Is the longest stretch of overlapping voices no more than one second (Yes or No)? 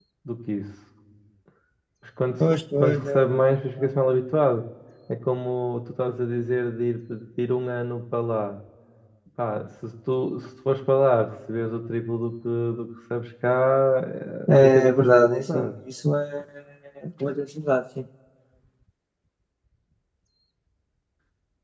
No